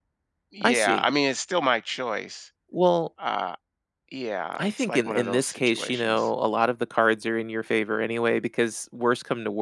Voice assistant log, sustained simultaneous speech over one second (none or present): present